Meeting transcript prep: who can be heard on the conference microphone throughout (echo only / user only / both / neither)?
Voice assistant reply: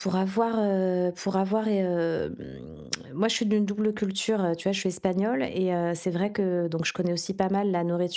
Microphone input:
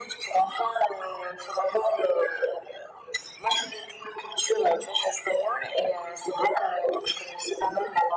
echo only